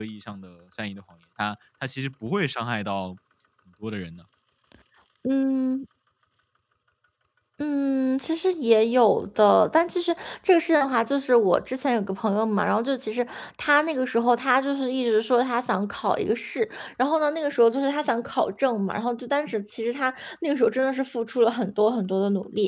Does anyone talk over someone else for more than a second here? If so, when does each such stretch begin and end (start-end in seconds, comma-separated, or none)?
none